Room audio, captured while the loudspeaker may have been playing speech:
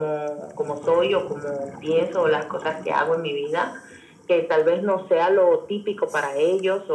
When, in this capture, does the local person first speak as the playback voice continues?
none

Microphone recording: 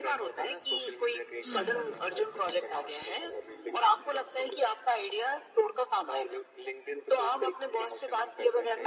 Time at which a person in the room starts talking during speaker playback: 1 s

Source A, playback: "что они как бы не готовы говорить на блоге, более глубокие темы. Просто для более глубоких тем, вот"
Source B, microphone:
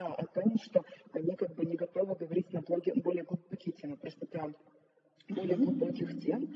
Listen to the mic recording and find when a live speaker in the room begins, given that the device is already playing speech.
5 s

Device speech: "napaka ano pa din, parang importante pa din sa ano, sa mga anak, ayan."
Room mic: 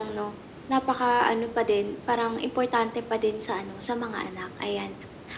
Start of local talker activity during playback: none

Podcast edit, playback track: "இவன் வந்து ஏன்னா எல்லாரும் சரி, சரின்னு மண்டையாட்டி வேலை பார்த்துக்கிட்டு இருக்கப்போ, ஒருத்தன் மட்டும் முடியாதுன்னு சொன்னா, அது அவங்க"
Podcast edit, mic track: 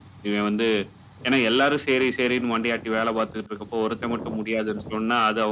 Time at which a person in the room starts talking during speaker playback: none

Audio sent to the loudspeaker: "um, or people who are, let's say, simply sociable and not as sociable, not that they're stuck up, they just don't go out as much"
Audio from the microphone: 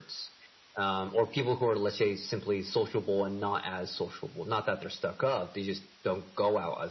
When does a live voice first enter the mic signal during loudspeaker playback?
none

